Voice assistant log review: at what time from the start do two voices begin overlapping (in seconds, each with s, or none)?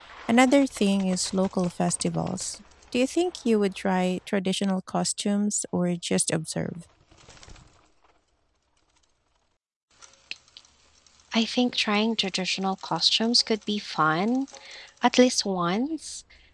none